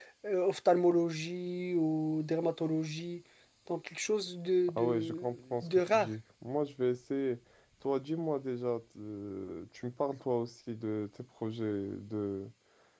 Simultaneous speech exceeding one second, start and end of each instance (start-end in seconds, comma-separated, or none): 4.7-6.1